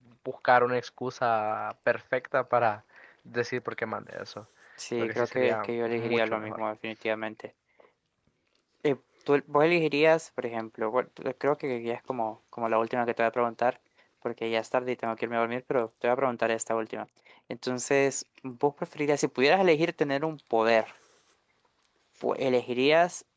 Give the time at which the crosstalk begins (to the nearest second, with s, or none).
5 s